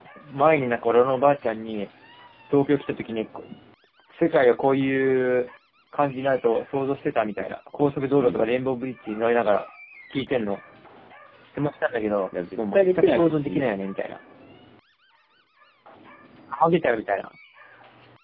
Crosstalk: present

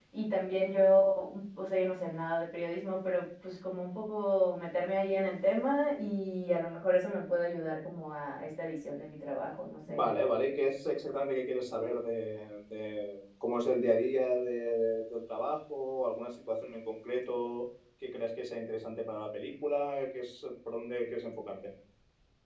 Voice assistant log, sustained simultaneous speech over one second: none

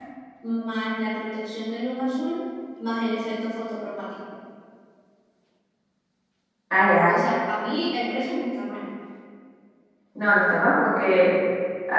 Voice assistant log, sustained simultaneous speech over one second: none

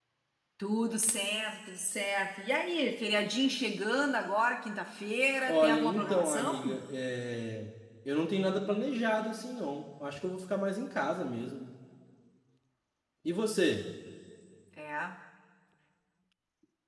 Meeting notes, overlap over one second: present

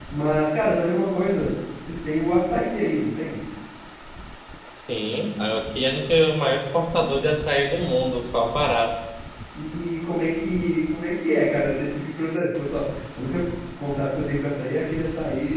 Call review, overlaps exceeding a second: none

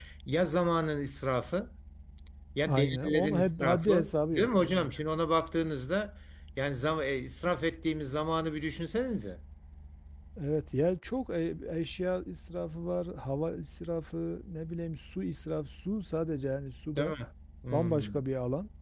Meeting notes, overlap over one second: present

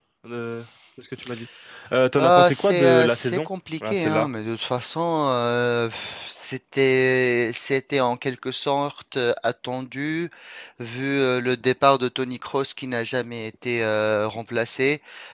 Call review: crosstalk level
present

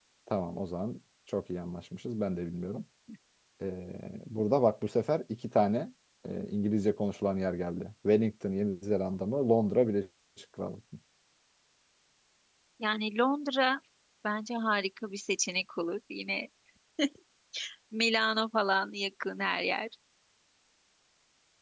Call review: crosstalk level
none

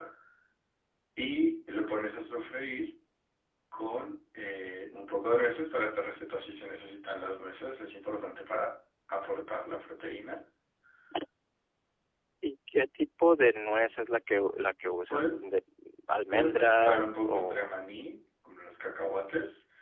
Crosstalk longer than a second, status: present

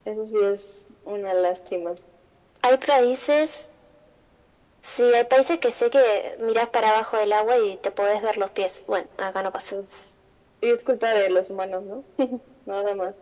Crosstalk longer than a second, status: none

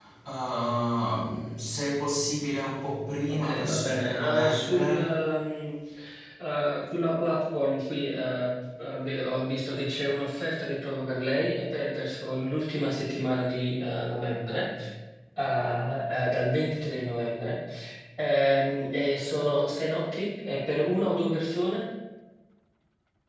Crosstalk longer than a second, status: present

